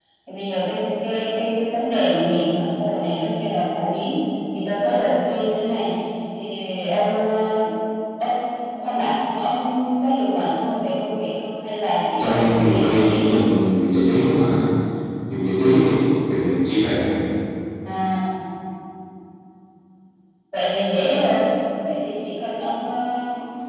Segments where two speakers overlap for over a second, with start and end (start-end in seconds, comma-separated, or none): 12.2-13.4